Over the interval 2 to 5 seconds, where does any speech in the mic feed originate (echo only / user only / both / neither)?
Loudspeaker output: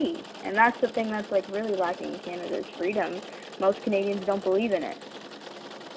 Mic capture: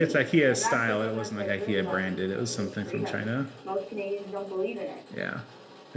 both